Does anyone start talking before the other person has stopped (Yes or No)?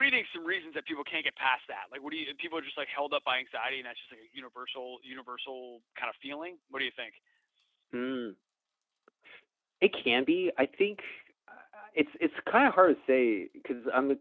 No